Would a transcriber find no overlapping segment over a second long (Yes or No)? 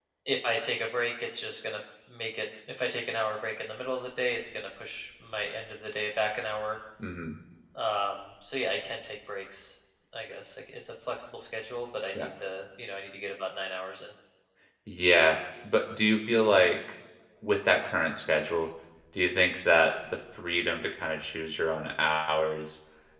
Yes